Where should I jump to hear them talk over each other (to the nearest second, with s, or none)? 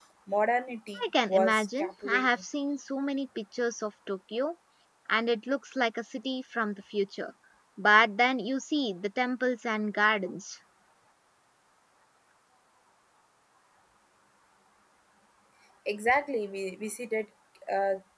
1 s